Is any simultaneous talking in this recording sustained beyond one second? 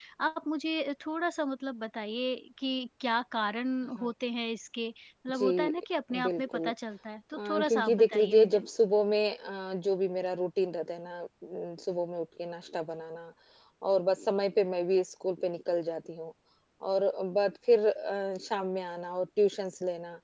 Yes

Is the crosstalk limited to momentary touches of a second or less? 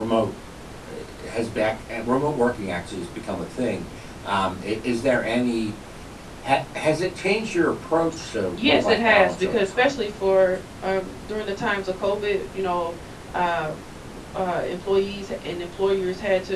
No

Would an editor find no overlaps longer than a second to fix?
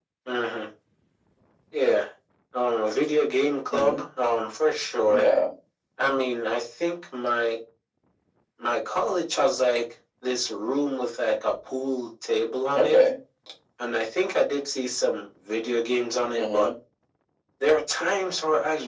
Yes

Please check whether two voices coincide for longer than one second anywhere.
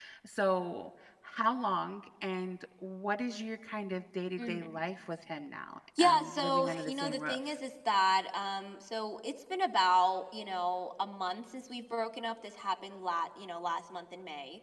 Yes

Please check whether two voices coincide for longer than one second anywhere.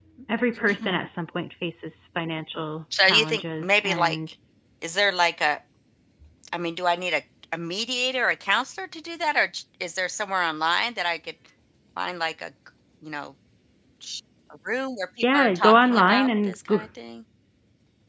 Yes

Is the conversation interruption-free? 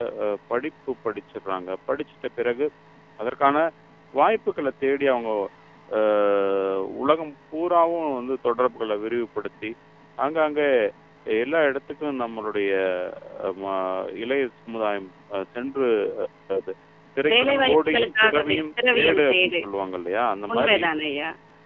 No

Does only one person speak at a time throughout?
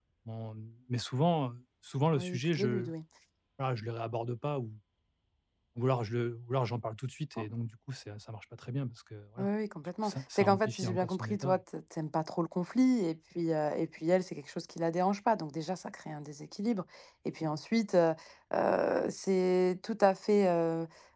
No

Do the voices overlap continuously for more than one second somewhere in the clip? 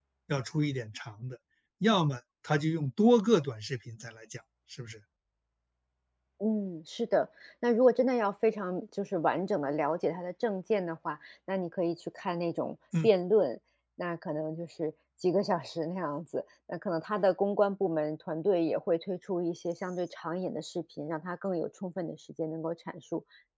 No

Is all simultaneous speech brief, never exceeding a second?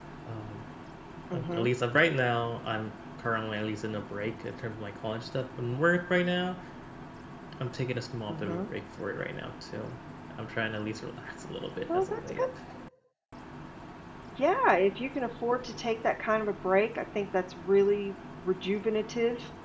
Yes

